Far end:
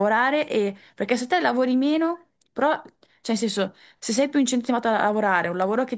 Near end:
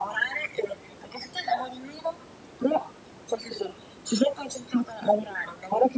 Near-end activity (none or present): none